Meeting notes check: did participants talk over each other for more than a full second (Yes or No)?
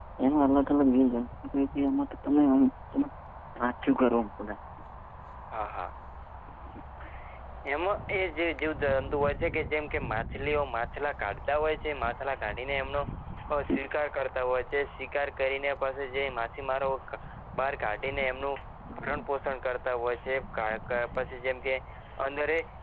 No